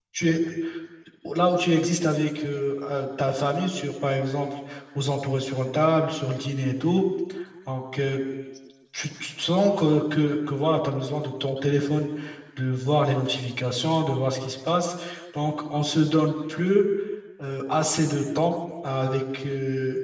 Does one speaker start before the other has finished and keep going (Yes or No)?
No